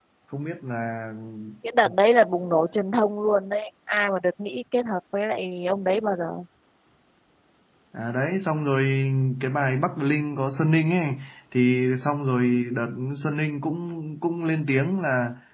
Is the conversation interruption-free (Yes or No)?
Yes